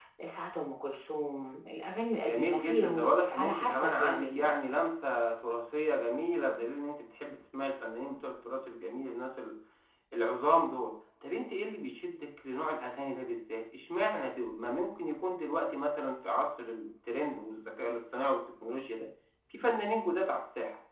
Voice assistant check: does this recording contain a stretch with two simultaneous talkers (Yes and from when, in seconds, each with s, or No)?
Yes, from 2.3 s